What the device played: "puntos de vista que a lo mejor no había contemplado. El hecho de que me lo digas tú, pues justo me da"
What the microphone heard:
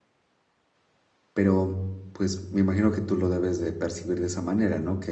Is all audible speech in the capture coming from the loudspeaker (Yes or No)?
No